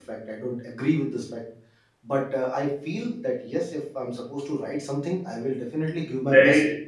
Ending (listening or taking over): taking over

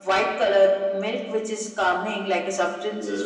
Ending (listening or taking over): listening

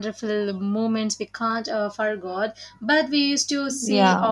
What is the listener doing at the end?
listening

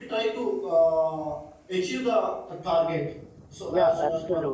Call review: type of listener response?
taking over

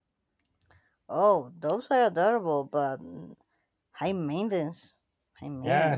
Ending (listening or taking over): taking over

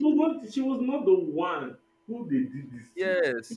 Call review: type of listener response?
taking over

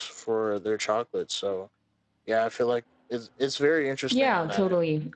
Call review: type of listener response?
taking over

